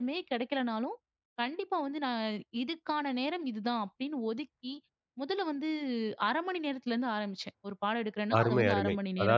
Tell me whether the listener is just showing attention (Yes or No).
No